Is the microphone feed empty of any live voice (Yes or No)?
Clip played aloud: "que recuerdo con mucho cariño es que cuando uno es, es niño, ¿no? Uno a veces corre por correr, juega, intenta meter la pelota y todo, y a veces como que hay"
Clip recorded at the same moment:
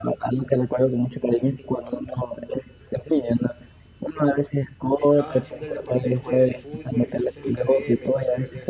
No